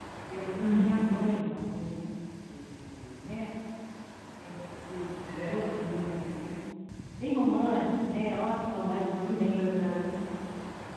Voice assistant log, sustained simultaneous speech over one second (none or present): present